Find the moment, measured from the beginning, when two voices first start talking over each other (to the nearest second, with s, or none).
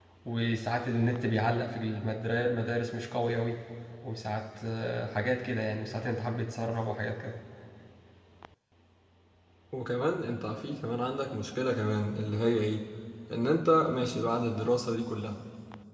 none